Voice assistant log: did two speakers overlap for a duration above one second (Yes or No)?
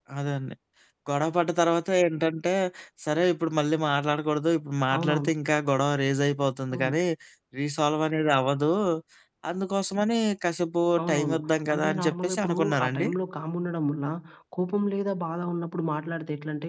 Yes